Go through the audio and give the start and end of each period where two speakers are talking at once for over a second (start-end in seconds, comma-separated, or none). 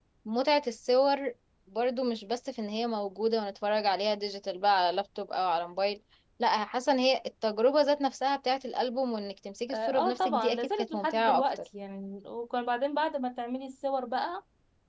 9.7-11.4